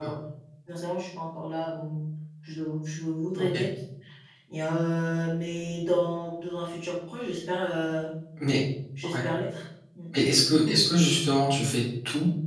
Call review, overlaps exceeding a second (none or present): none